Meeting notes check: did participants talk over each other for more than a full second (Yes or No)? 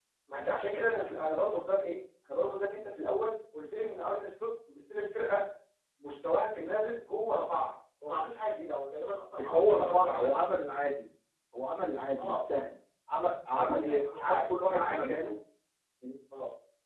Yes